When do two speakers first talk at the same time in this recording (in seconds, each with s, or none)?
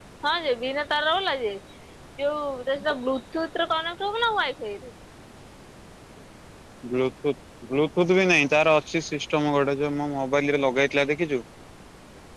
none